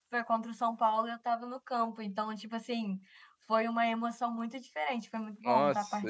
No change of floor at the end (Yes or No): No